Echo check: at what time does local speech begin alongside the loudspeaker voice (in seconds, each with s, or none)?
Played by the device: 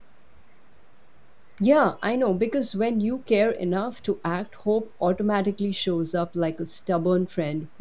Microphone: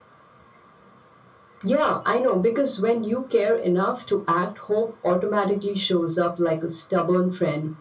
none